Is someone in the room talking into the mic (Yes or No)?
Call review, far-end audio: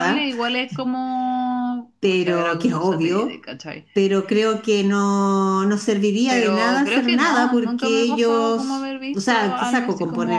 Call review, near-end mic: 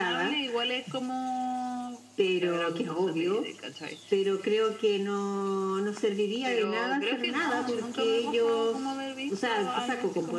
No